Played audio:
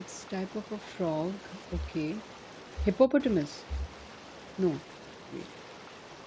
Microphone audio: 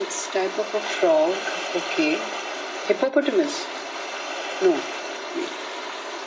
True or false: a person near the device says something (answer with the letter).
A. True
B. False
B